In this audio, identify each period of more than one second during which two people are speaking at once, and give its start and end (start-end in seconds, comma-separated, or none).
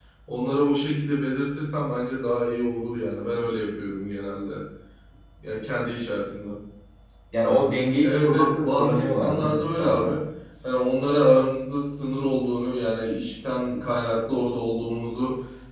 8.0-10.1